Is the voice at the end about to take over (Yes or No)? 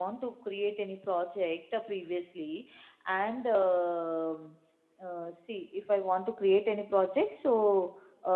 No